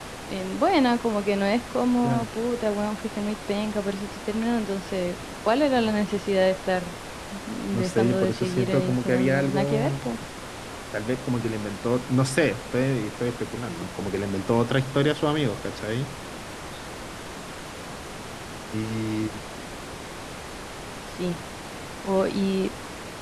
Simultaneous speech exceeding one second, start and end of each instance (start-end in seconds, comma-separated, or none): 7.7-10.1